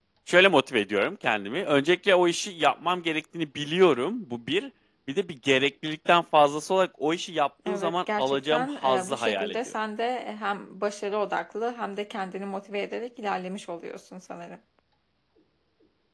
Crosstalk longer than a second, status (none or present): present